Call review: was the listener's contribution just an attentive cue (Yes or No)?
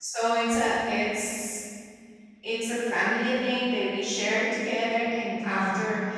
Yes